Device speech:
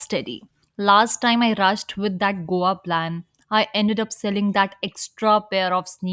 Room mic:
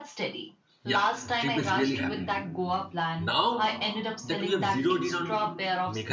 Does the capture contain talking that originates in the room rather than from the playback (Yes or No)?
Yes